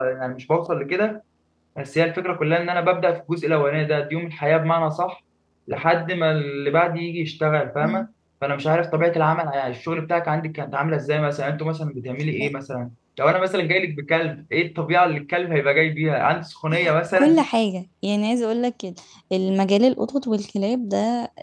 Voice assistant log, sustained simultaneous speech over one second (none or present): none